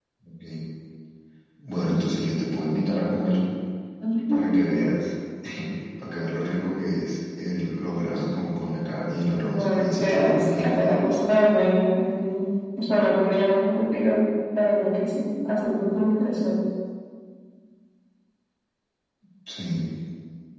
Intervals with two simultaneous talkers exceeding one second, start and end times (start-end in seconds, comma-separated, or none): 9.4-10.9